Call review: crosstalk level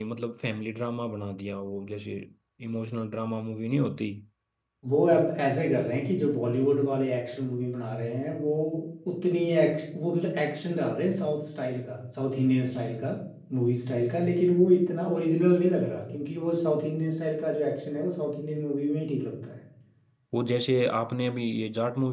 none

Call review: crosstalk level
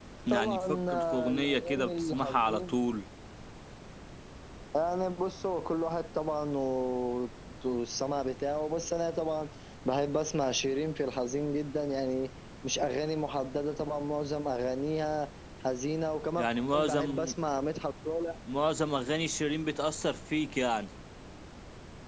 present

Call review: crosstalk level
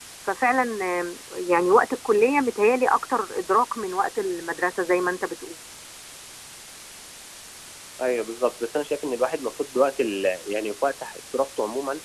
none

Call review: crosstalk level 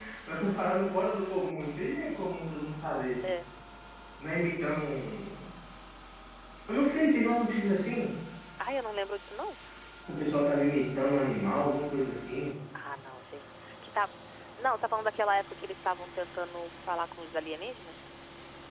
none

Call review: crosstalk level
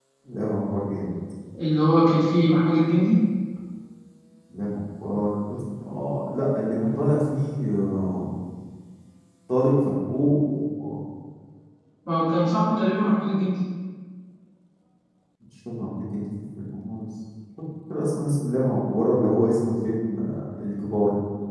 none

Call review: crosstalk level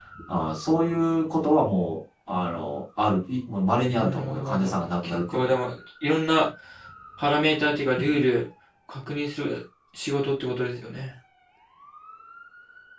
present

